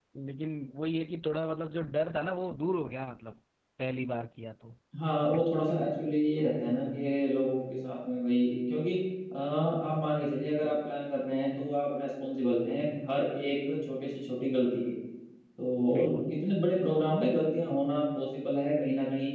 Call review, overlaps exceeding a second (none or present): none